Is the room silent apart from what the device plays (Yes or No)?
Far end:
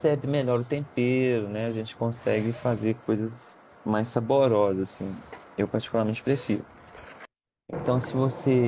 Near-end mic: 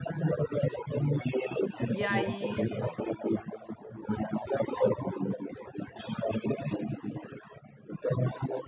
No